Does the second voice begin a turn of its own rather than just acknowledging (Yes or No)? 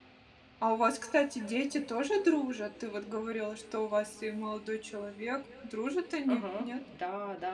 Yes